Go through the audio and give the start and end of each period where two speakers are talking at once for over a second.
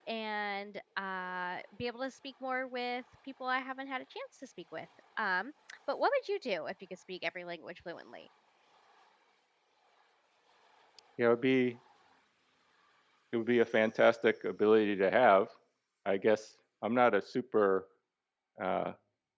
none

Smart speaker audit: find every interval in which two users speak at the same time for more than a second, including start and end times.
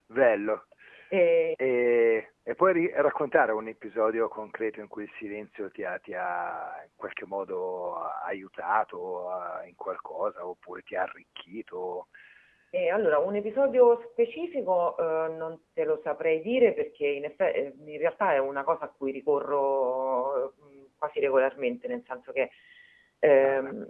none

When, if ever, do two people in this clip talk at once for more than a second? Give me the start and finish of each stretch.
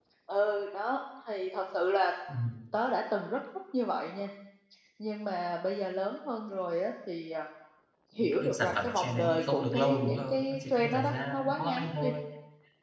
8.2-12.1

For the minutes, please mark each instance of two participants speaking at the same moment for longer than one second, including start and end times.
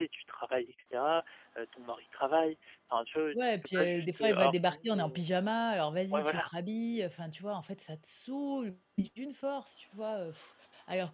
3.6-5.2

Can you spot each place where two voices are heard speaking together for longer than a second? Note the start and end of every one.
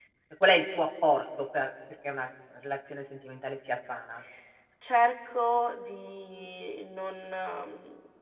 none

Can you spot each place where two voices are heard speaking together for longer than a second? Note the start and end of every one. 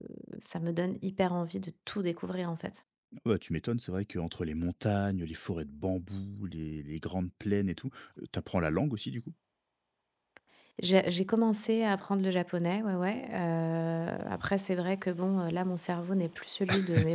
none

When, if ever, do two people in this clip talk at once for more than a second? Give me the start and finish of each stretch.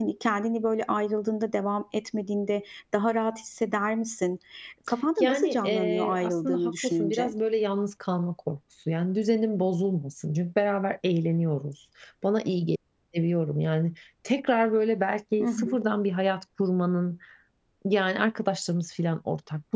5.2-7.3

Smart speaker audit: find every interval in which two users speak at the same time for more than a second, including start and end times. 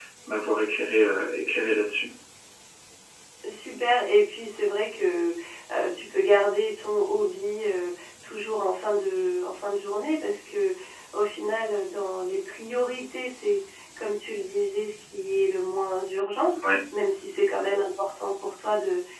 none

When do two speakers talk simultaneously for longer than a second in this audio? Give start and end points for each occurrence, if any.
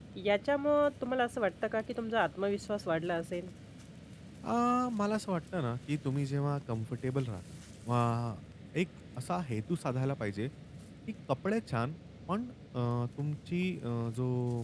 none

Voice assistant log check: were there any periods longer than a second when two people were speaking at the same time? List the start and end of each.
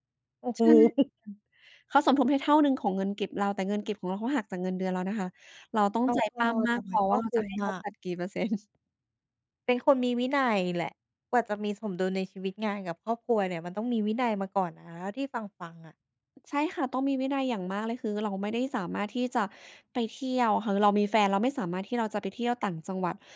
6.1-7.6

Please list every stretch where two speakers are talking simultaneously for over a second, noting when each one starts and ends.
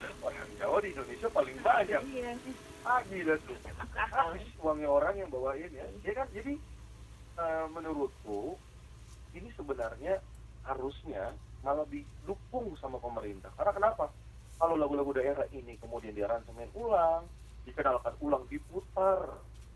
none

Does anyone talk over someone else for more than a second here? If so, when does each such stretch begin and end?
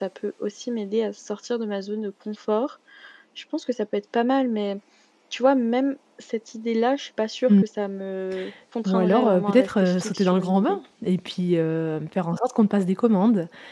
8.8-10.8

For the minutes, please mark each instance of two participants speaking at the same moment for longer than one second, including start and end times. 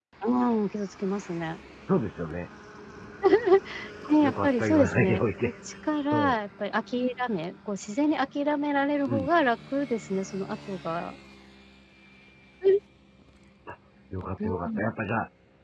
4.1-5.5

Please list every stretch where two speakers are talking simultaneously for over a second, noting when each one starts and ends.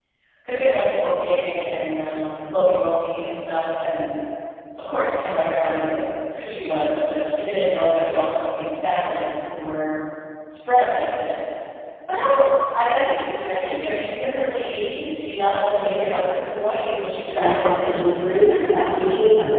17.4-19.1

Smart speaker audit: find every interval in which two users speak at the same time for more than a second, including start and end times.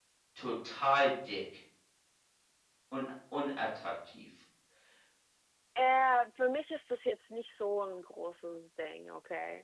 none

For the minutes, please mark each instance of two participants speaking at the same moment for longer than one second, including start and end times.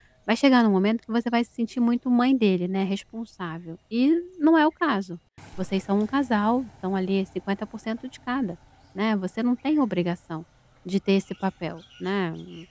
none

